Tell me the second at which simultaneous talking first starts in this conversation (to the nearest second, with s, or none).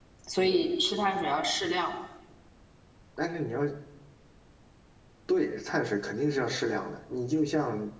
none